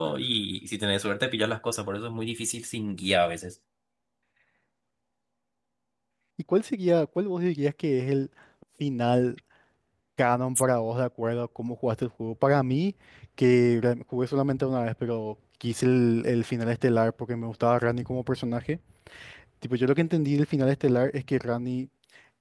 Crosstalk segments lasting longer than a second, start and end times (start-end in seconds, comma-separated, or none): none